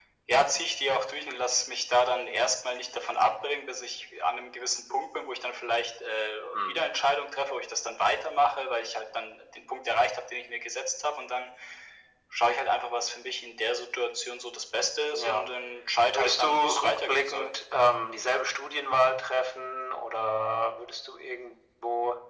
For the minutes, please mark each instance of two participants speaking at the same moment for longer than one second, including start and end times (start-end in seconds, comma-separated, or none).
16.1-17.5